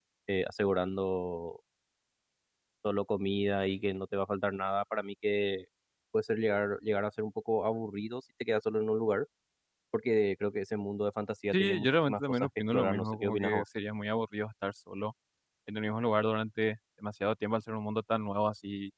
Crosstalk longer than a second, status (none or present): present